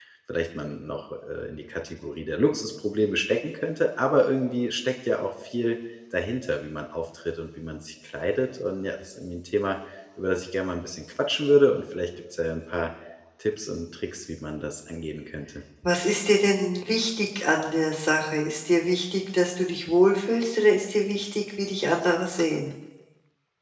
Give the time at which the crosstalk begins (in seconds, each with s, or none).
none